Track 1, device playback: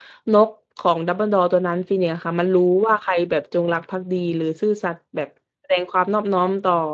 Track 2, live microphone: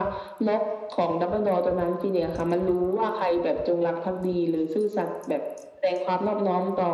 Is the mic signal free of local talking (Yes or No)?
Yes